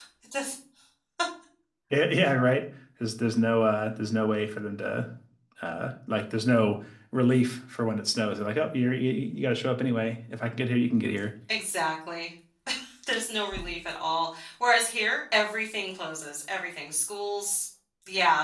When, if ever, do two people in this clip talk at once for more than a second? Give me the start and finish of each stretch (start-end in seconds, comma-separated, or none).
none